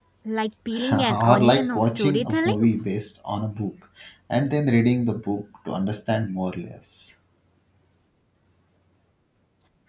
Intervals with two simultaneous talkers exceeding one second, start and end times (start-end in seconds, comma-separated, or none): 0.9-2.7